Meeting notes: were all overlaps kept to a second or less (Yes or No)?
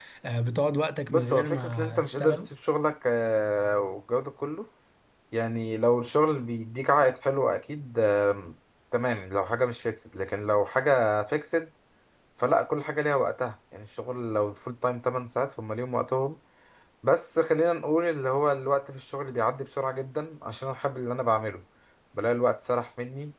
No